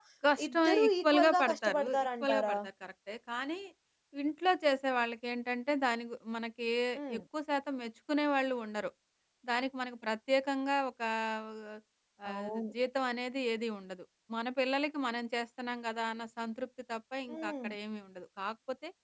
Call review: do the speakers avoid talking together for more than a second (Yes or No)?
No